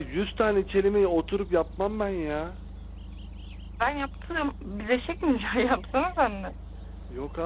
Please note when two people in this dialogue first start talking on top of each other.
none

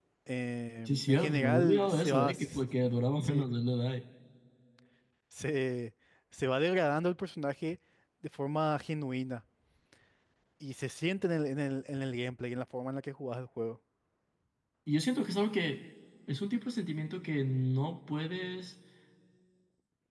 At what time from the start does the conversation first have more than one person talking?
0.9 s

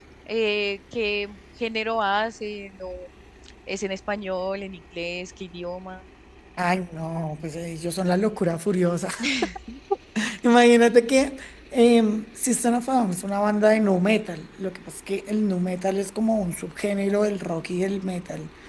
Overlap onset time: none

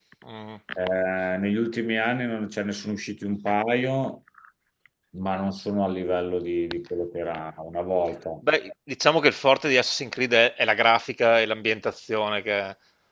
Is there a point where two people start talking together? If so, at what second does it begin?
none

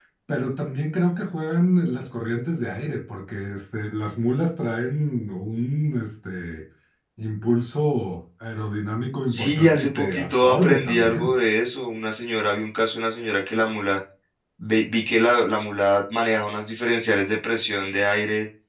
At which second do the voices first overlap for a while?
9.3 s

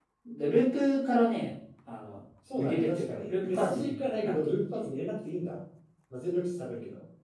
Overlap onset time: 2.5 s

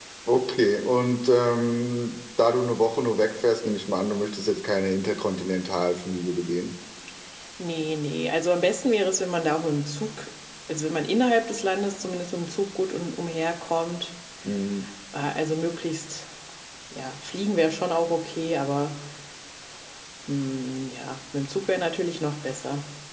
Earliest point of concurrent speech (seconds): none

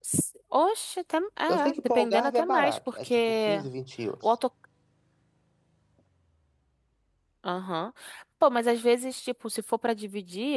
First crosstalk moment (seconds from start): 1.5 s

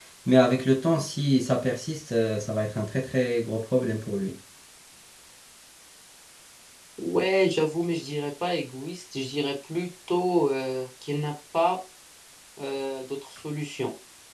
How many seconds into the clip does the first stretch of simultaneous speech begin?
none

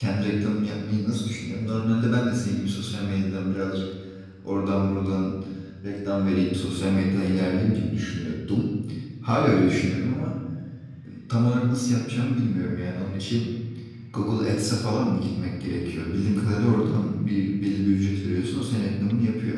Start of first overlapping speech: none

